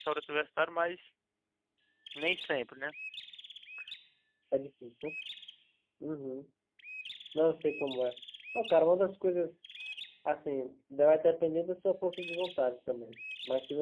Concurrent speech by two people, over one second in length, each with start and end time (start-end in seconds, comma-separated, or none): none